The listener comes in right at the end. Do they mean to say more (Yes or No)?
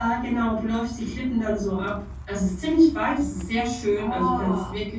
No